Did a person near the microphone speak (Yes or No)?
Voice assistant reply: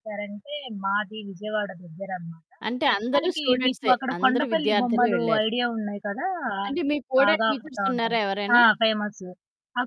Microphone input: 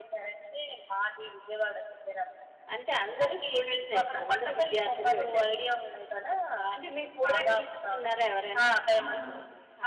Yes